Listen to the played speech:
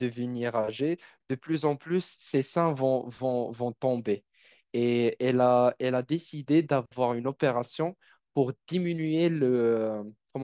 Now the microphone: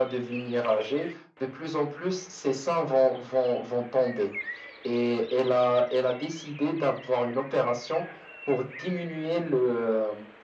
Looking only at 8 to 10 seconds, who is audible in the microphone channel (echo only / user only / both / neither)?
echo only